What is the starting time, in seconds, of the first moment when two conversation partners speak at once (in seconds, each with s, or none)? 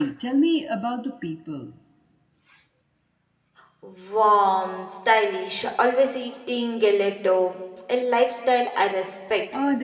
none